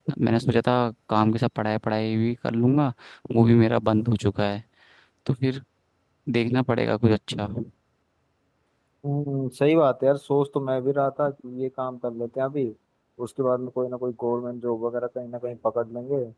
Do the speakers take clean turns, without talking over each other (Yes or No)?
Yes